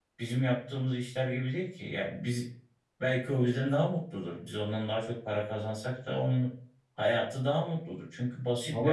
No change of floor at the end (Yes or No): No